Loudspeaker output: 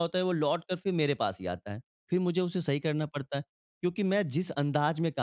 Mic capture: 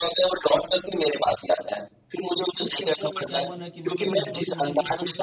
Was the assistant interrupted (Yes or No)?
Yes